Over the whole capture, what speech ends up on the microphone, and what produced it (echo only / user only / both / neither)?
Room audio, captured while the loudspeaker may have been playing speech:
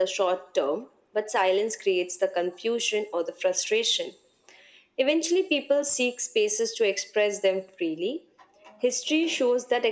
echo only